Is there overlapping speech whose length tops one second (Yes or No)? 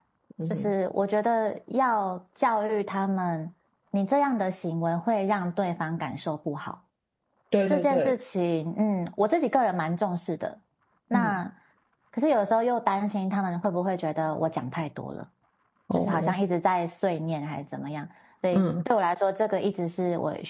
No